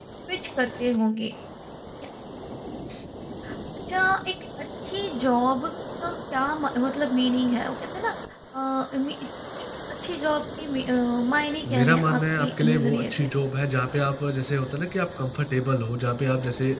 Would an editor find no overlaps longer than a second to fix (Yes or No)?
No